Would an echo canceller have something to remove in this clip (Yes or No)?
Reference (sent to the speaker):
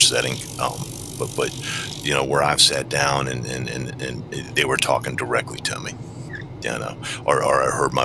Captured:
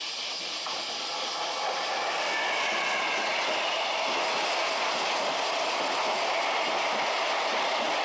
No